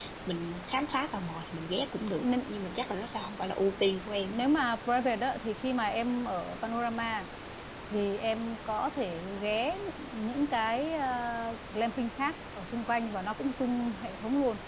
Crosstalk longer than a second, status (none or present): none